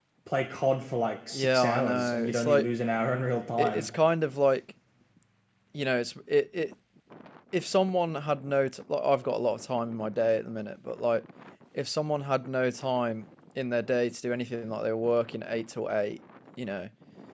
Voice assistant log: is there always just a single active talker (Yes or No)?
No